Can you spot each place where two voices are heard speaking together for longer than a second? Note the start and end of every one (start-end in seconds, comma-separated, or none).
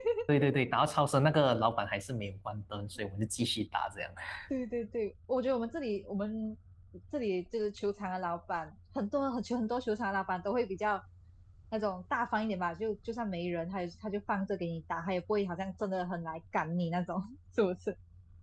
none